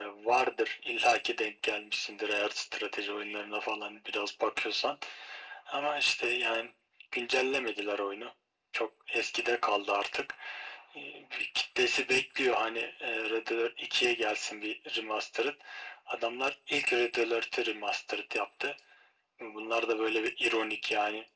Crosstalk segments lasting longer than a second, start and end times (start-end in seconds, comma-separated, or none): none